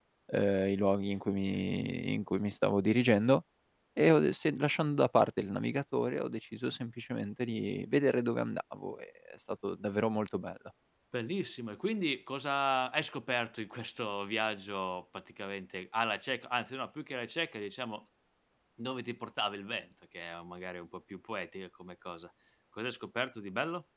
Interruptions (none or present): none